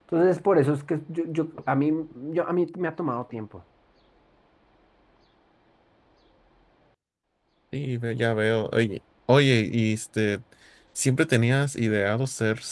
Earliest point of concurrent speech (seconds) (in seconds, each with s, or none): none